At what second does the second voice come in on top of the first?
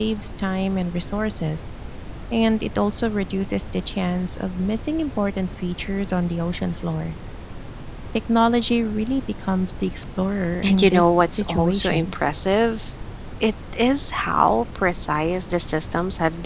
10.6 s

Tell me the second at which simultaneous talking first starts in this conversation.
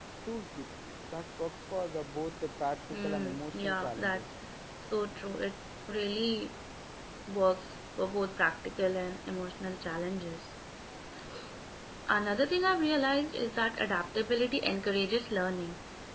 2.9 s

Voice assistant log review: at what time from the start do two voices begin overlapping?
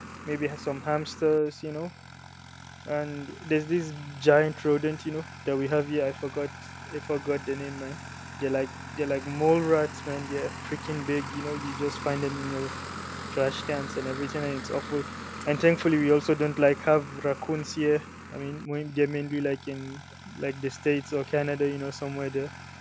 none

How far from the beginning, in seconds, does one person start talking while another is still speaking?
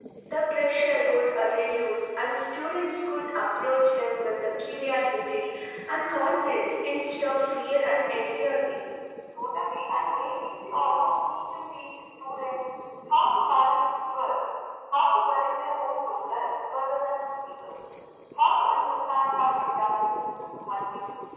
none

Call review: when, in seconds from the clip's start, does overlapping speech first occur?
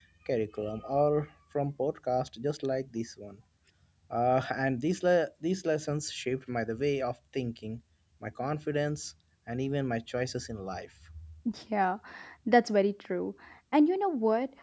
none

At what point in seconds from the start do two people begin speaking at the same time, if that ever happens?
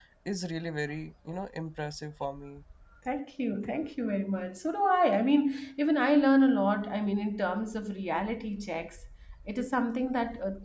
none

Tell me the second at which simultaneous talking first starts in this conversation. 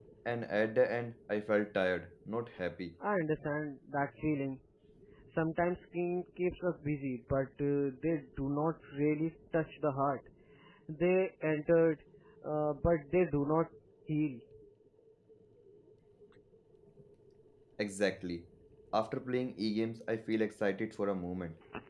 none

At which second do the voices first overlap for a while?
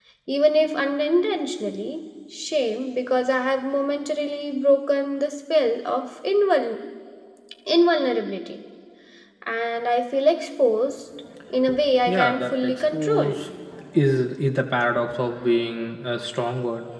12.1 s

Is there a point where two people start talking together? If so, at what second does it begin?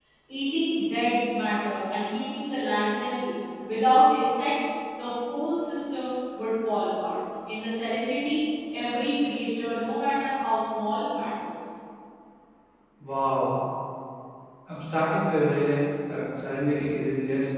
none

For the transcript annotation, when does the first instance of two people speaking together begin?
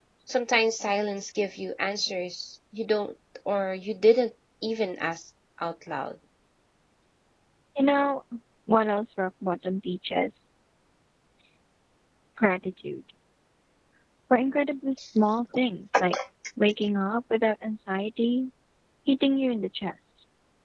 none

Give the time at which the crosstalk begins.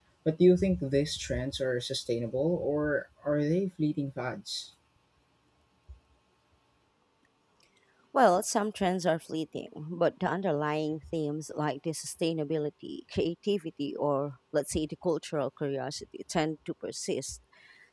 none

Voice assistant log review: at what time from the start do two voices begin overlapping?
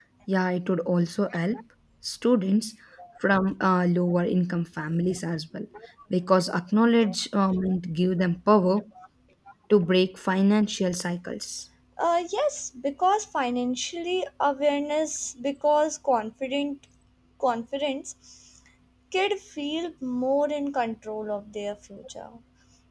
none

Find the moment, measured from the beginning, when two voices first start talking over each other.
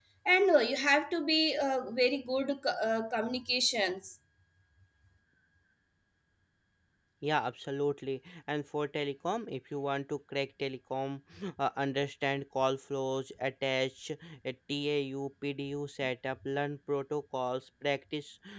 none

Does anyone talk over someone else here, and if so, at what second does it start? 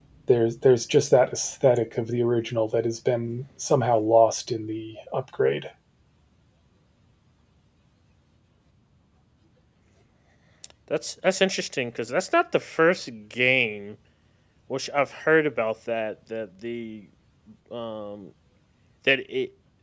none

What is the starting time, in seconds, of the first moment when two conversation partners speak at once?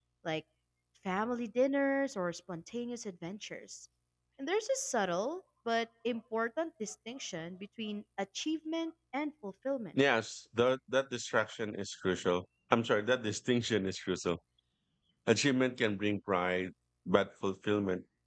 none

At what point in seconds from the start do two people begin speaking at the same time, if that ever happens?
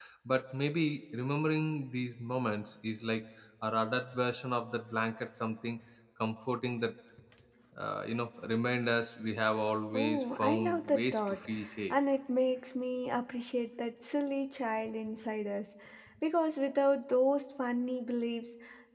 9.9 s

